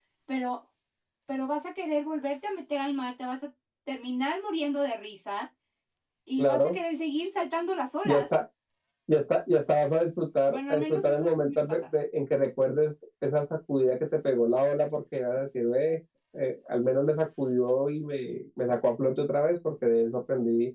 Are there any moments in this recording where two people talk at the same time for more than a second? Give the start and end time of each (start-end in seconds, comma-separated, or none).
10.5-11.8